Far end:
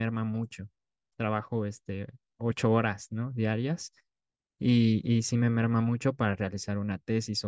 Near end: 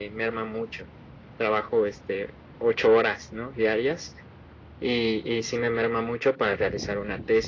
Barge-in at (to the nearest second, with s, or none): none